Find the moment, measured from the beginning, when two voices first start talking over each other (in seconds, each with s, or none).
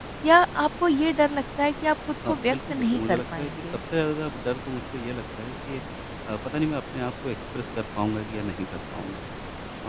2.2 s